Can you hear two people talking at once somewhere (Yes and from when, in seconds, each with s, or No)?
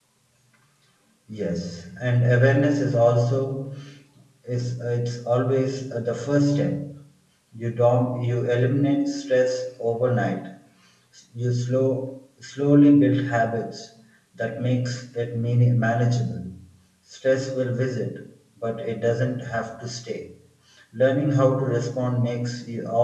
No